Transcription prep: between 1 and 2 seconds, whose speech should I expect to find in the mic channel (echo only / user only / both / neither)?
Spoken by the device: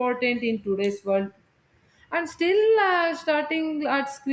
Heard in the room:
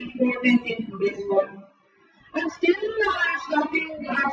echo only